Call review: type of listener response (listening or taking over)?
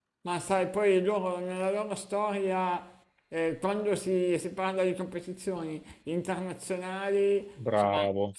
listening